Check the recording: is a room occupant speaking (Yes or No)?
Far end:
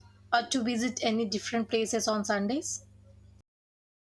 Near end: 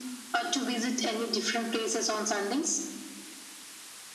No